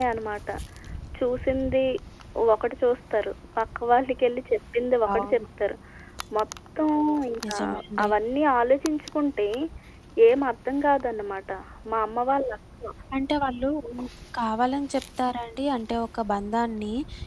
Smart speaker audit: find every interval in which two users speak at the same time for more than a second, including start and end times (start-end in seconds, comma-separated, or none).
none